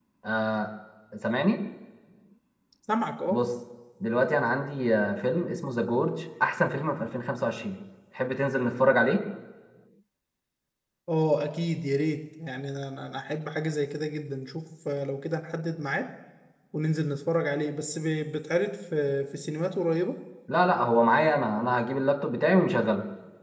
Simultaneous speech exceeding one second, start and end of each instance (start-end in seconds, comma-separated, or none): none